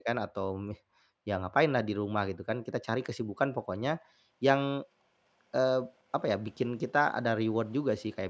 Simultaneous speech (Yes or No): No